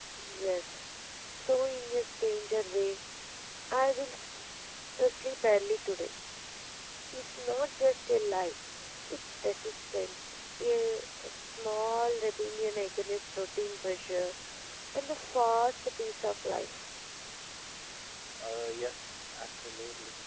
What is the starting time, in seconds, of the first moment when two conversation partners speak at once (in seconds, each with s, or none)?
none